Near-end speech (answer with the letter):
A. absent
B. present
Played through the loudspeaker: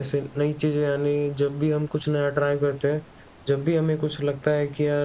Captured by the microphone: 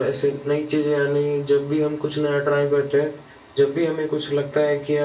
A